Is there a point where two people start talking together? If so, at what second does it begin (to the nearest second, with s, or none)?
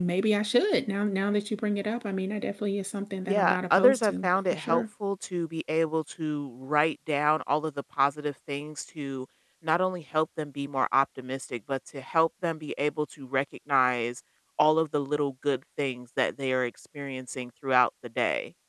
3 s